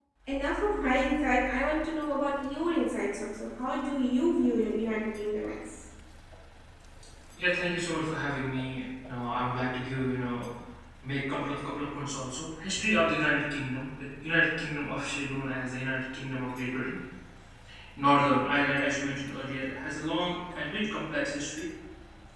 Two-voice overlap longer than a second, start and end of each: none

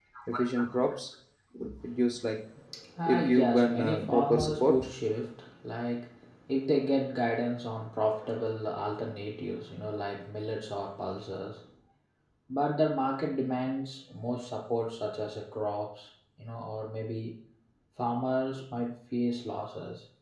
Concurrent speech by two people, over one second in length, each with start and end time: 3.1-4.9

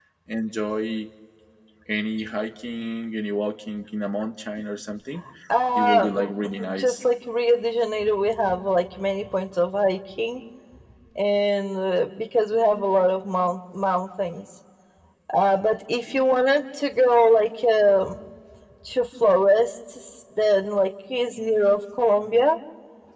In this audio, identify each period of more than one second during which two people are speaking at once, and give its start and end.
5.8-7.0

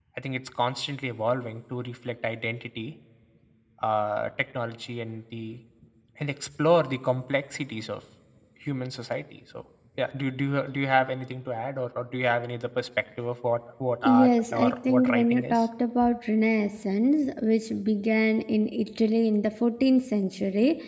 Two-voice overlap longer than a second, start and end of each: 14.0-15.7

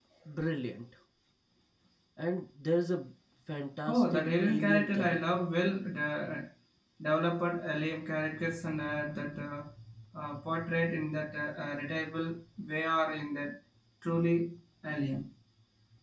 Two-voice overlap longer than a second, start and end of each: 3.9-5.2

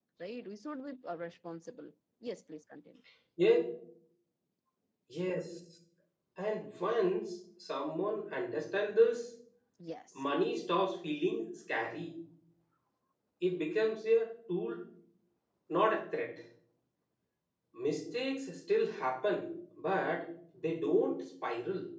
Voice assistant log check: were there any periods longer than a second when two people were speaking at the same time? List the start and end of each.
none

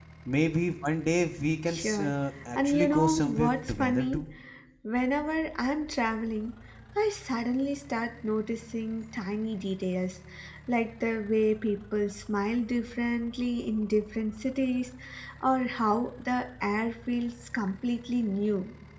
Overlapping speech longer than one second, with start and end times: 2.5-4.2

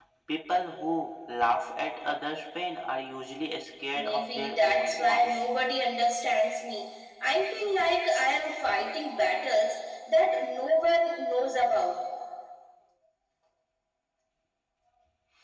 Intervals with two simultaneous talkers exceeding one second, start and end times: 3.9-5.4

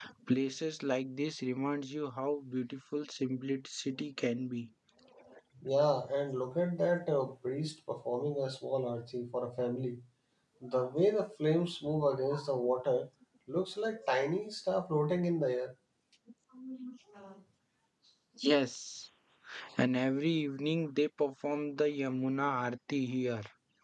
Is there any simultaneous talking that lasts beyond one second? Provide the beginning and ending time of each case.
none

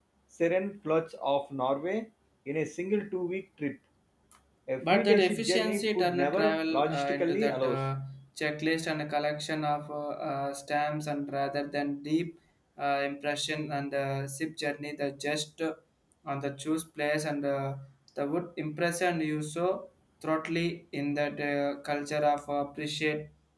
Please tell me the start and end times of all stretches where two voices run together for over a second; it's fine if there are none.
4.8-7.8

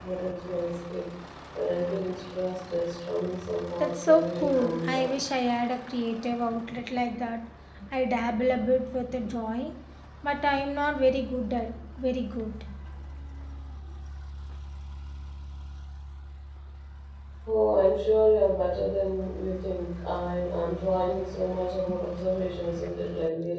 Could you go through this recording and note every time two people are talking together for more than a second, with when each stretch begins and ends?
3.8-5.1

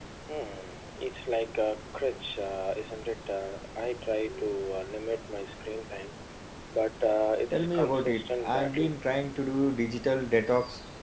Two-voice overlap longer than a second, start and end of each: 7.5-8.9

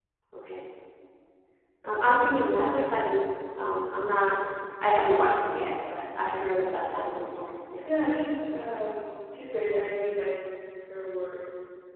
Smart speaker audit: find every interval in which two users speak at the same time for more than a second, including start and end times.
none

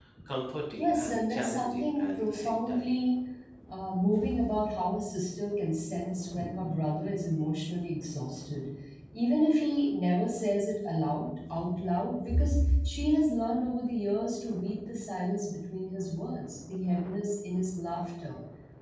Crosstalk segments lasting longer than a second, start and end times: 0.8-2.9

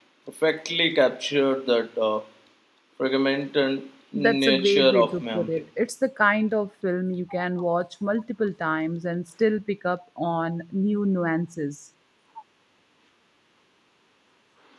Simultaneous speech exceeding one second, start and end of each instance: 4.1-5.6

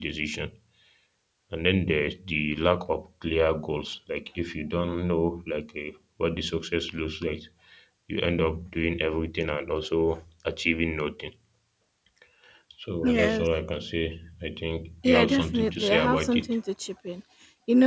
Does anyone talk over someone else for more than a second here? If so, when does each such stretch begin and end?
15.0-16.6

